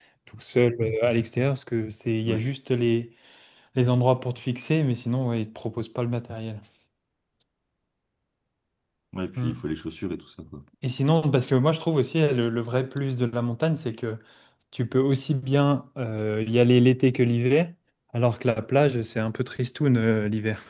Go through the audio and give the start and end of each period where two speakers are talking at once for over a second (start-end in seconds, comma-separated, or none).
none